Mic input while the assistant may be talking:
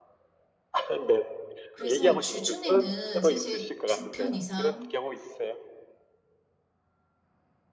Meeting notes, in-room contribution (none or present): present